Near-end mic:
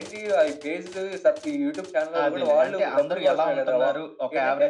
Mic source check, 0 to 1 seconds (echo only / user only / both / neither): echo only